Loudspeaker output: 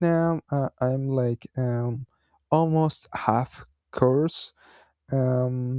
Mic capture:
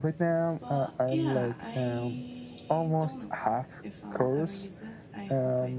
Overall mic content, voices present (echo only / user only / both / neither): both